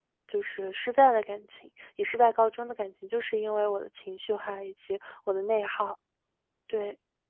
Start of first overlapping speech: none

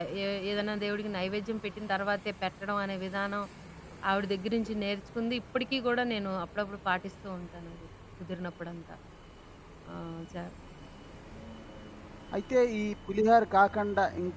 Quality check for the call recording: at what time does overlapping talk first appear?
none

